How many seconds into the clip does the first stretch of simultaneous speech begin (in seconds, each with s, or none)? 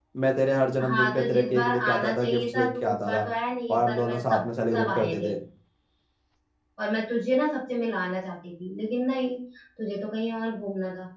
0.9 s